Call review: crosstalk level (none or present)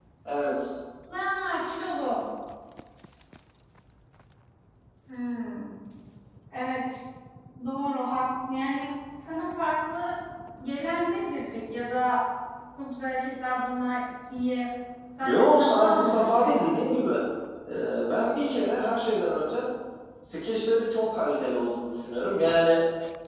present